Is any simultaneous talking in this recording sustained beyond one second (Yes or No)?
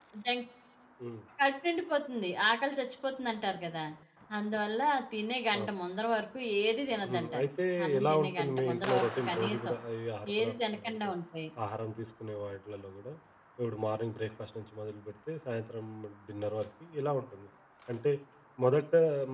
Yes